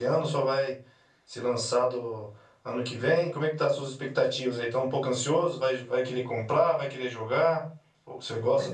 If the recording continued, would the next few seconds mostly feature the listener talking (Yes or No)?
Yes